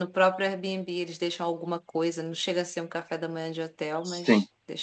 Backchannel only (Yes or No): No